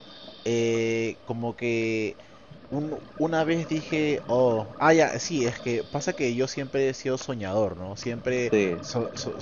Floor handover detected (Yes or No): No